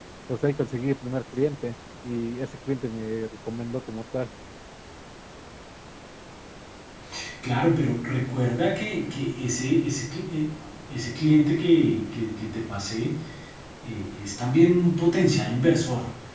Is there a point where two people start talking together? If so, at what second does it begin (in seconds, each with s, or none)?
none